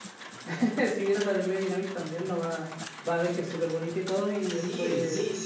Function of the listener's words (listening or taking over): taking over